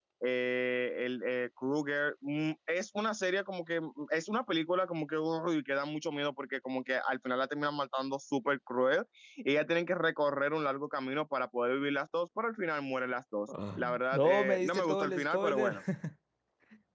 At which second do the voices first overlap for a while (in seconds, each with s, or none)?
13.8 s